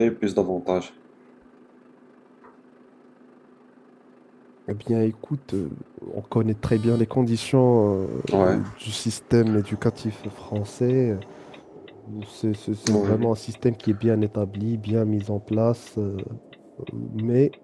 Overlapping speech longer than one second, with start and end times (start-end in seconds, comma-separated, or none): none